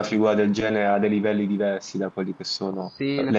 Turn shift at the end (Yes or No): Yes